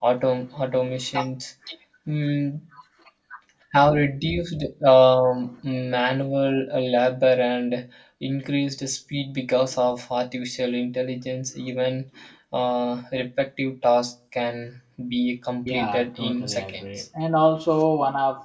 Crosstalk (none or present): present